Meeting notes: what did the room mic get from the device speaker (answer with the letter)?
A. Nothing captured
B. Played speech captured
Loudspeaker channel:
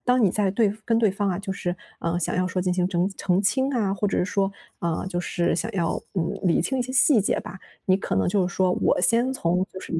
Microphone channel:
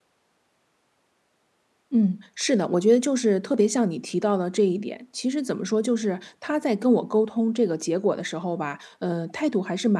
A